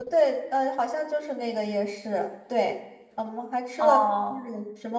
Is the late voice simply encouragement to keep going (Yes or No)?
Yes